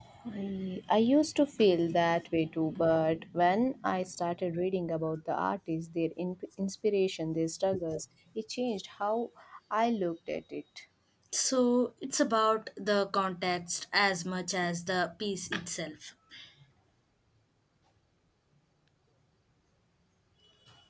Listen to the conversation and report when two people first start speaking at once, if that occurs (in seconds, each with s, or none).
none